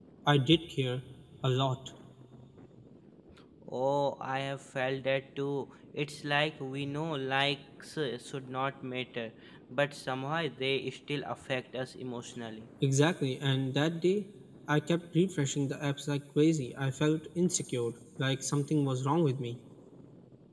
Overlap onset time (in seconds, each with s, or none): none